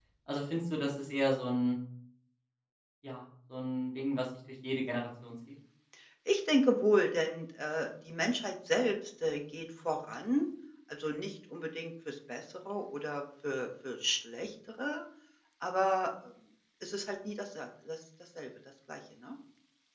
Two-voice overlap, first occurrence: none

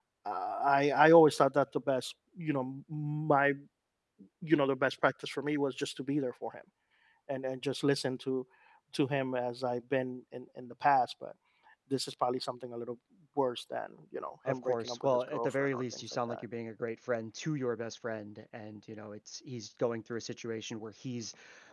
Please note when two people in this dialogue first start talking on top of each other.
14 s

